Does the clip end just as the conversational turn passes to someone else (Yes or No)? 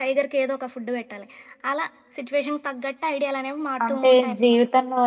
Yes